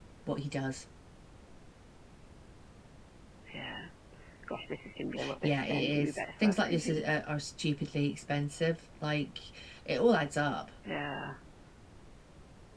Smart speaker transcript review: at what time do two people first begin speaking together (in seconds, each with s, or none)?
5.4 s